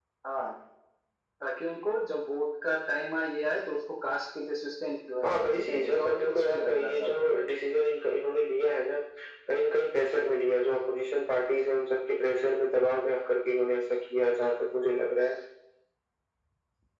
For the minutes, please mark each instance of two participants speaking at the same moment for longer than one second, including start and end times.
5.2-7.4

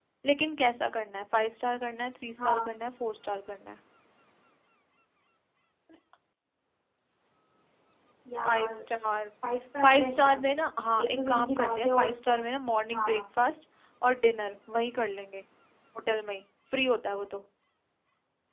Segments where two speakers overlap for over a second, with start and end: 11.0-12.4

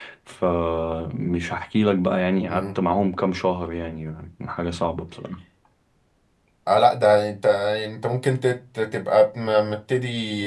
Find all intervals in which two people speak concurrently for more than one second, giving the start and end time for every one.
none

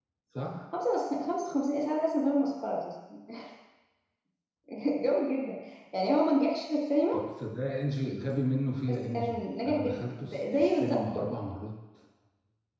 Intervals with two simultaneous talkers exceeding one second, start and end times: 8.9-11.0

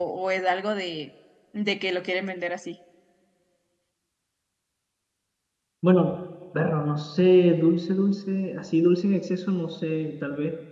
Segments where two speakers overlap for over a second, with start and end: none

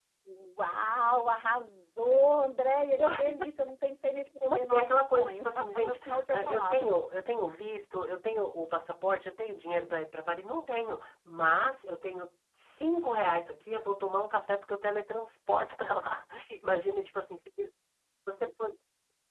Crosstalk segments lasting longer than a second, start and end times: 4.4-6.9

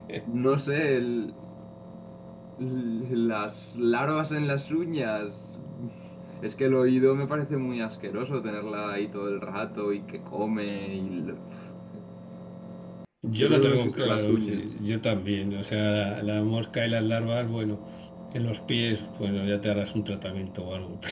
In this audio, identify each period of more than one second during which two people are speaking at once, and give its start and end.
13.4-14.7

